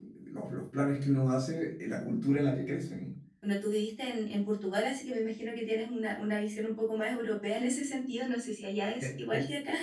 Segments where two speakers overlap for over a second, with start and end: none

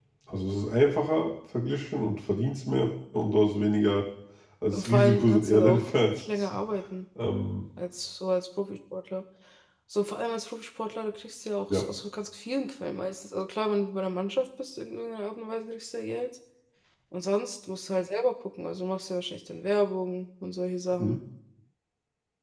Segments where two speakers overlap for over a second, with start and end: 4.7-6.6

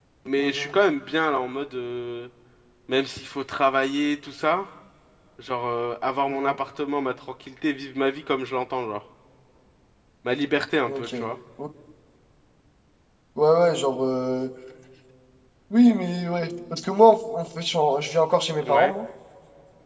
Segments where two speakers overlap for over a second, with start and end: none

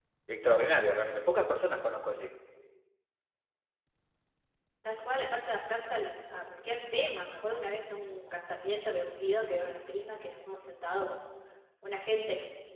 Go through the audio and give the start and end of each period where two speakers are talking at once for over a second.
none

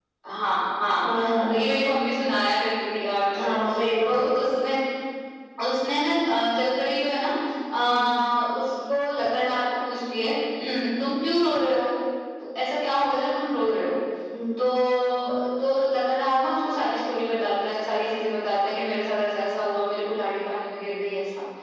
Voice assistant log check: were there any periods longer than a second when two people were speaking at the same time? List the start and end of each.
none

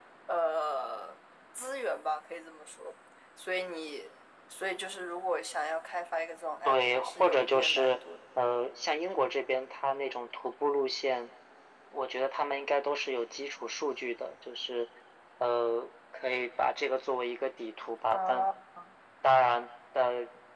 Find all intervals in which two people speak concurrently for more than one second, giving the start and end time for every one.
6.7-8.0

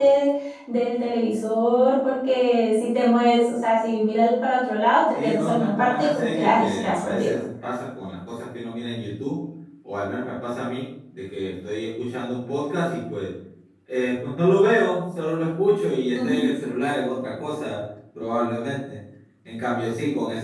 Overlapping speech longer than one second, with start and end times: 5.1-7.4

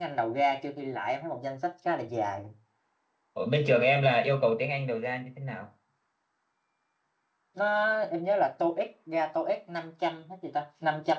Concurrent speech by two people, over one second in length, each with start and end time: none

